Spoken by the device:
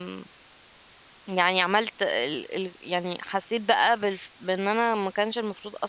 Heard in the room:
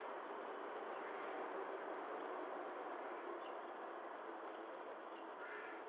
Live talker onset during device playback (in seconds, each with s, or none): none